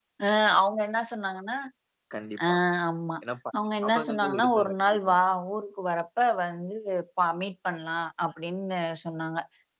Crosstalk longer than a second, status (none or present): present